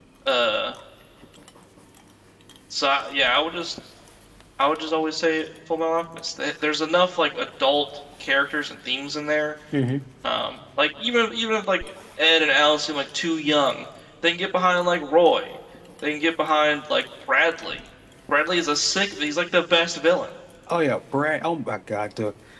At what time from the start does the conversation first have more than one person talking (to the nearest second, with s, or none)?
none